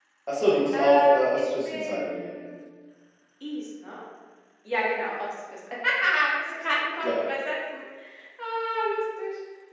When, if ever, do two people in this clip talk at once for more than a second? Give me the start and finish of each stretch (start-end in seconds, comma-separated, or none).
0.7-2.3